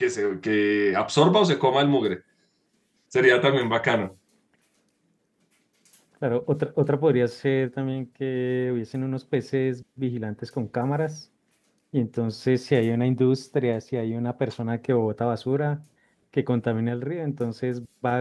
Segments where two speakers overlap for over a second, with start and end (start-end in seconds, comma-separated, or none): none